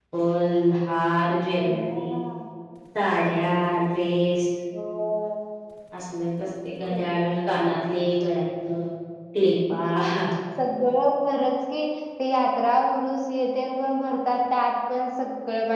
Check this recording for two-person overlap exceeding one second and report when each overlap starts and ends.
none

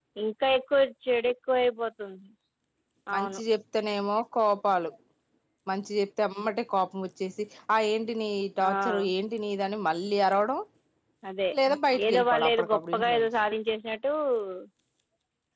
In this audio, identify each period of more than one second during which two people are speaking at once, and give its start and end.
12.0-13.3

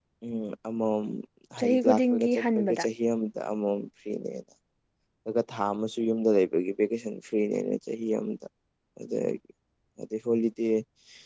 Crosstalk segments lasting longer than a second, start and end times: 1.6-2.8

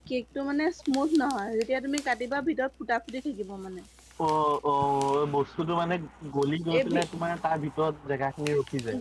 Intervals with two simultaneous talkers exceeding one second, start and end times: none

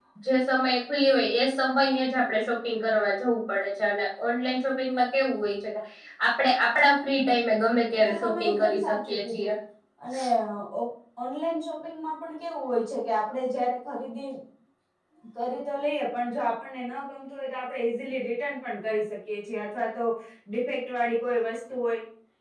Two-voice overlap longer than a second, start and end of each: 8.0-9.5

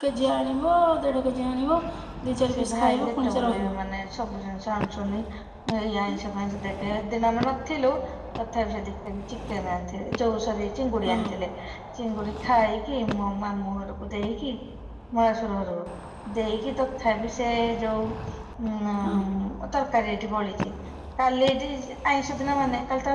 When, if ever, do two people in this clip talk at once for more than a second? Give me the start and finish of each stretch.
2.5-3.7

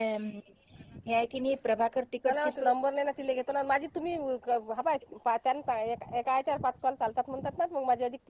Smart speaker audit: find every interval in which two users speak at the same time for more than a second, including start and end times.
none

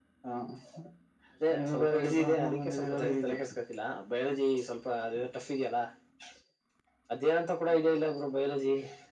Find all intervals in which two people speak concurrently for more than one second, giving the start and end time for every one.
1.6-3.4

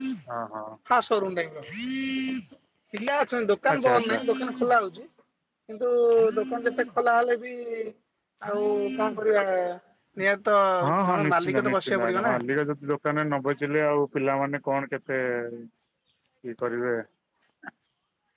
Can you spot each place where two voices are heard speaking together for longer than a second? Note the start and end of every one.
11.1-12.3

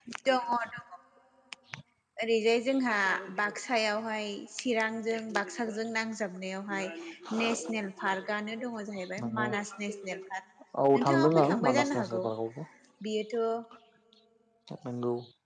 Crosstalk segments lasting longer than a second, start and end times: 11.0-12.2

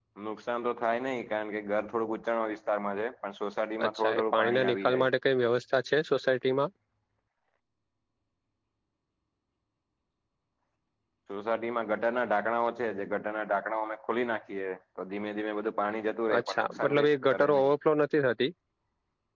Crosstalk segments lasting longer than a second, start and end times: 3.9-5.1, 16.4-17.7

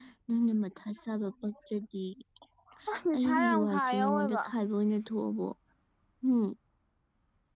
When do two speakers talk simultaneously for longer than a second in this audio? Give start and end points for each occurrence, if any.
3.1-4.4

